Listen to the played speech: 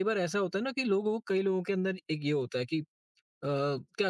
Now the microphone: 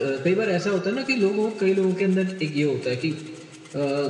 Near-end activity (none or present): none